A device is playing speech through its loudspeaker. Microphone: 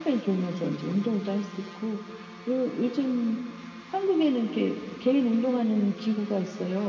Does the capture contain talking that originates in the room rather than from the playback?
No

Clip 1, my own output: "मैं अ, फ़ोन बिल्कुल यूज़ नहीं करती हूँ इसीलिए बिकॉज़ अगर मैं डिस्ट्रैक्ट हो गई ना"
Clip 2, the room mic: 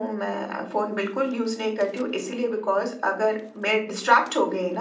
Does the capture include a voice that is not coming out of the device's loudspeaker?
No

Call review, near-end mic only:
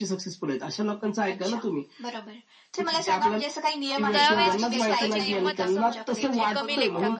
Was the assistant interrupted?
Yes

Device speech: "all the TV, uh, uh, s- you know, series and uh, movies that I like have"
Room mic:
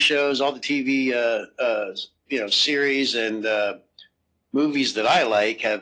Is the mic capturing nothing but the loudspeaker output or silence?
Yes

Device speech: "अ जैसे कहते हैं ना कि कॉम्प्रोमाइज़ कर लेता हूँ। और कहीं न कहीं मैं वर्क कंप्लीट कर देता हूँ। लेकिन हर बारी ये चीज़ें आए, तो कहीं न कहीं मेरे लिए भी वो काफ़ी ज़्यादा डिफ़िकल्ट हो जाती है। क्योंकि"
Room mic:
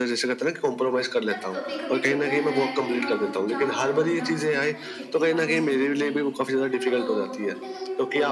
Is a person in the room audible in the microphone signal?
Yes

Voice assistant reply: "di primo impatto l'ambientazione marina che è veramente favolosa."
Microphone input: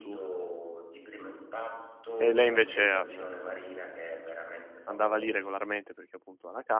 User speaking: Yes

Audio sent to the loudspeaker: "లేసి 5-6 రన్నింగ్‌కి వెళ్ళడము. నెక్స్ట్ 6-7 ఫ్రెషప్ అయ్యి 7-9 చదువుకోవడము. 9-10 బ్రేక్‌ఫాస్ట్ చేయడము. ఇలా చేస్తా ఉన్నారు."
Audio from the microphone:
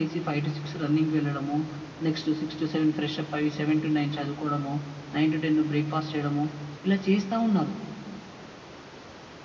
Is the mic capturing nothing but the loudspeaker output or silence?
Yes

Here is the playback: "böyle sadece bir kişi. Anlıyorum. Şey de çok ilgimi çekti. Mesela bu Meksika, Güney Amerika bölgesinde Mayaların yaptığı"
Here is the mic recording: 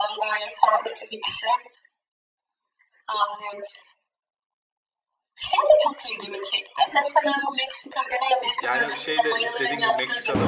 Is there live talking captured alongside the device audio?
Yes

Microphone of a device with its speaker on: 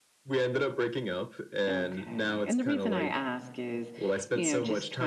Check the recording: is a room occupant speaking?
Yes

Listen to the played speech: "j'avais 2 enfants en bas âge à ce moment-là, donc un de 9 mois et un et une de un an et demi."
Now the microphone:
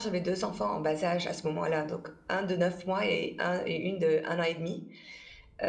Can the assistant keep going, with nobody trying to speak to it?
Yes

